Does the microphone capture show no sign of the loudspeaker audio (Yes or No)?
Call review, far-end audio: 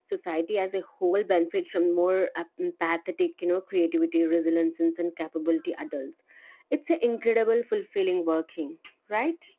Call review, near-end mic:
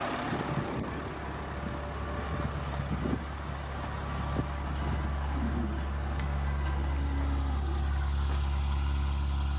Yes